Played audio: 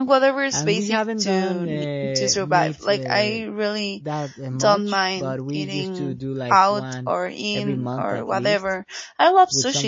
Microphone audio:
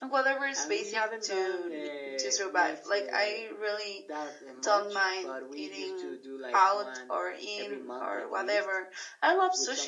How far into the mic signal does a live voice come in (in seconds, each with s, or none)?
none